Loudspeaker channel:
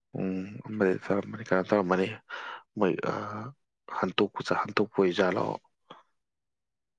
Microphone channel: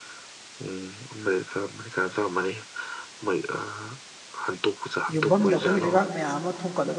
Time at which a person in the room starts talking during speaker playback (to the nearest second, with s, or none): 5 s